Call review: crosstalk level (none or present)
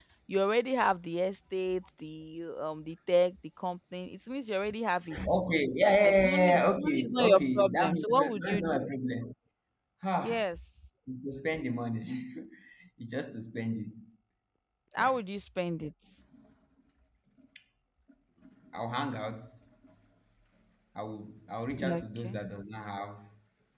present